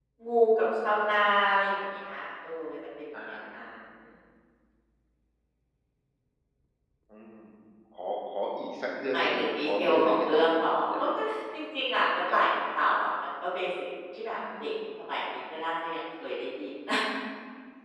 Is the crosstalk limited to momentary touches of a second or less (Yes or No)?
No